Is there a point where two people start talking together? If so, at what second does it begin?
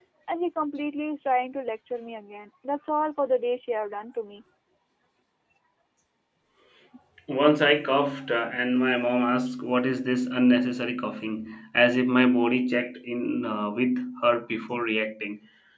none

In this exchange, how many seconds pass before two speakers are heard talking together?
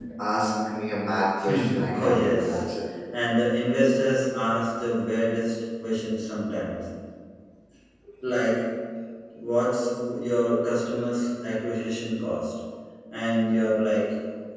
1 s

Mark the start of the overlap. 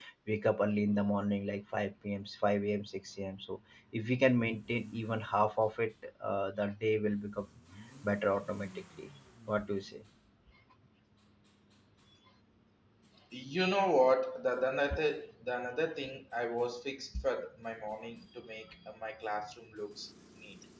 none

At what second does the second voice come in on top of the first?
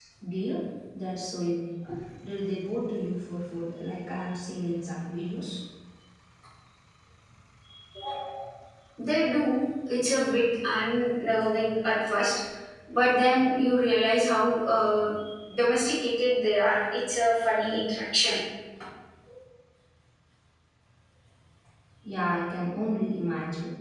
none

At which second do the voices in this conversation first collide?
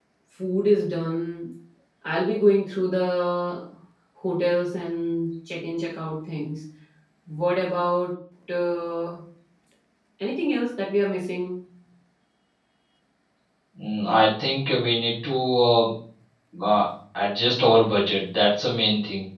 none

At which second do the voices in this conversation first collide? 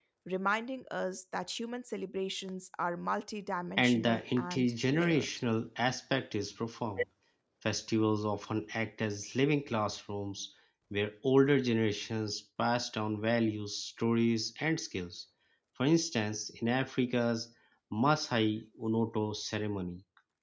4 s

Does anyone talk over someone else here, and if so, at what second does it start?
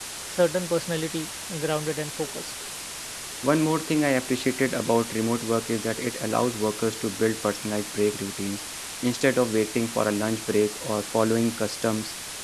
none

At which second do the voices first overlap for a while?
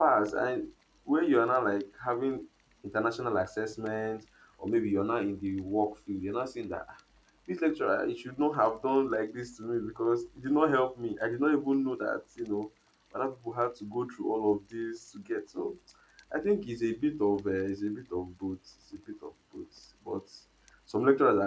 none

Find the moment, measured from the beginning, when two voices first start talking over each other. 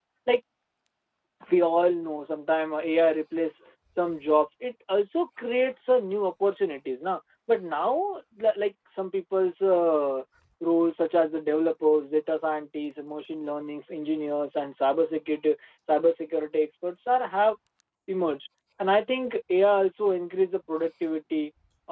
none

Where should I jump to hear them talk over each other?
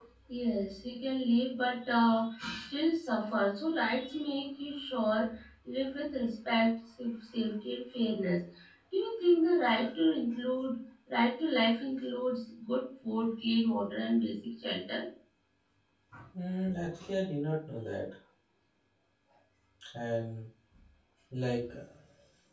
none

